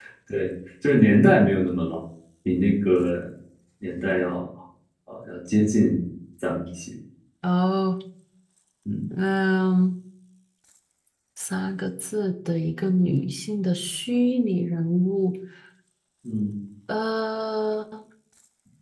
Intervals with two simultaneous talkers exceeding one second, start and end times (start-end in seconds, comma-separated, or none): none